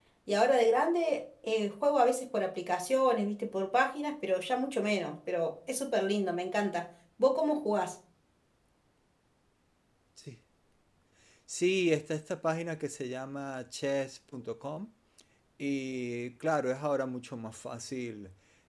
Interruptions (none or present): none